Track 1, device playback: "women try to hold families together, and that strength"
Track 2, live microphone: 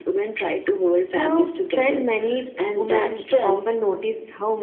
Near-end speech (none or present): present